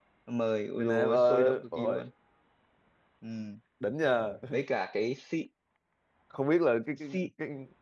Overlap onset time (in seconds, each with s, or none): 0.8 s